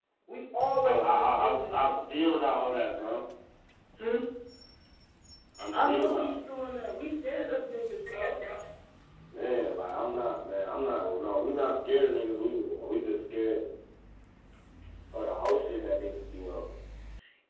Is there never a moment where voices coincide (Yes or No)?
No